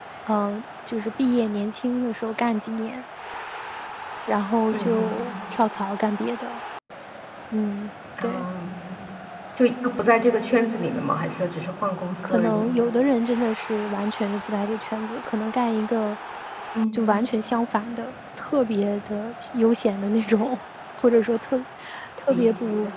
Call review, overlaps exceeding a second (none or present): none